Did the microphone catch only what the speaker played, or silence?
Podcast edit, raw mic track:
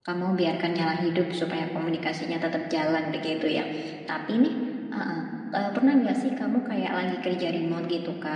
No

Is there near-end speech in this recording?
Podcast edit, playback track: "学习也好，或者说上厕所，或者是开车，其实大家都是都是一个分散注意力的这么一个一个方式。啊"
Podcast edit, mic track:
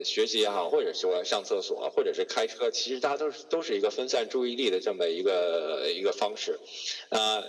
No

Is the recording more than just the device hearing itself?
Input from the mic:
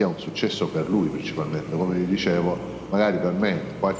No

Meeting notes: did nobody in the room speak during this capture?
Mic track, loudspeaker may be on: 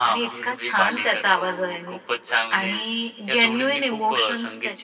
Yes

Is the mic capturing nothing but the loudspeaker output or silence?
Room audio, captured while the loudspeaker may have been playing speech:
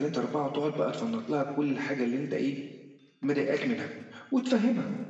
Yes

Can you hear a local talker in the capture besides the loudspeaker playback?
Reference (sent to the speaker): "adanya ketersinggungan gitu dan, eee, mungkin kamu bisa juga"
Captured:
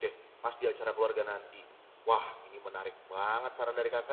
Yes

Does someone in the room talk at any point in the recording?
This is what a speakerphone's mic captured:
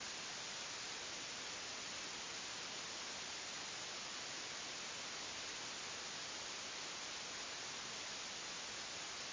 No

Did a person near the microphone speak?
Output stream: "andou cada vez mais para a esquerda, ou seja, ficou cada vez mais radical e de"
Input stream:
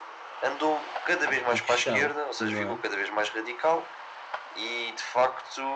Yes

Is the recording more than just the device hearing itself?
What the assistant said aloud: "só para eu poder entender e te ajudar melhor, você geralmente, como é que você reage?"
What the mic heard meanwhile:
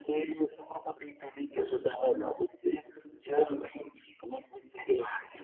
No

